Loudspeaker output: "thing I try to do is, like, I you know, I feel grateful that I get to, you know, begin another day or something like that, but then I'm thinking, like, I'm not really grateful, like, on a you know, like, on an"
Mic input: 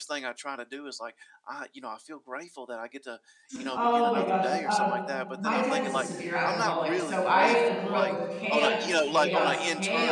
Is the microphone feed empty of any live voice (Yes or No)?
No